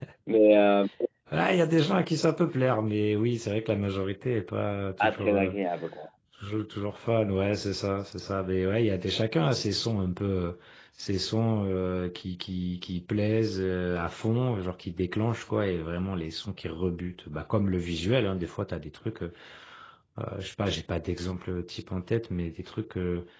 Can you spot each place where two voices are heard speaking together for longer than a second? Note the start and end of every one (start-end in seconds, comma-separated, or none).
none